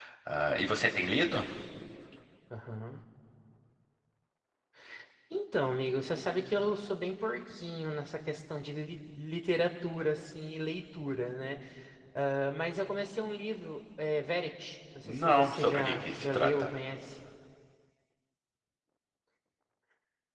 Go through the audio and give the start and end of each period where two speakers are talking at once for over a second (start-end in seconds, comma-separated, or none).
15.0-16.7